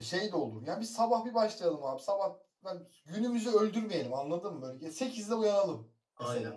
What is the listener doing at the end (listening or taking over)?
taking over